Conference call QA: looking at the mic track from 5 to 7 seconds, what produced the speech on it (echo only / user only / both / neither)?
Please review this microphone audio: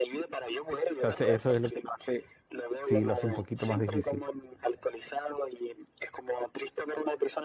echo only